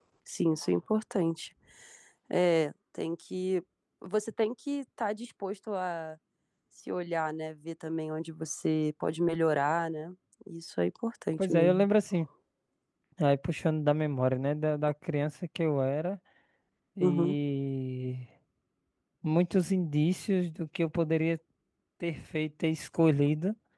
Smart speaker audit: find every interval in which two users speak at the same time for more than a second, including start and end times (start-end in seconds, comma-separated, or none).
none